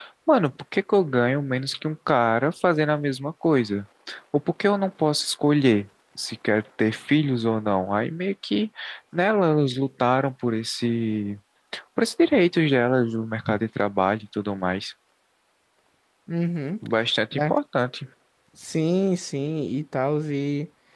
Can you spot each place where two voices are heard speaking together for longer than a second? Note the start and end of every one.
none

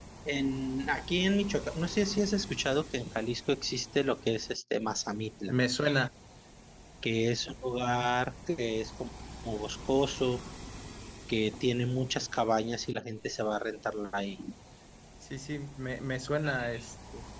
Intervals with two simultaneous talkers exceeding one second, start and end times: none

